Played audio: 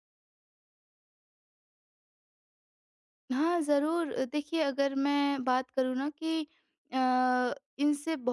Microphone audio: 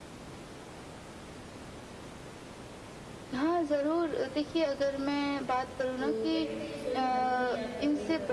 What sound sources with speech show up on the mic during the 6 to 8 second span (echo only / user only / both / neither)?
both